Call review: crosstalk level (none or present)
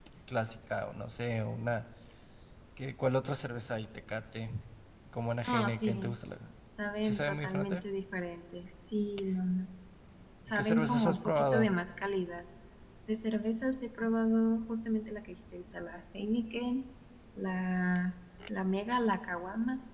present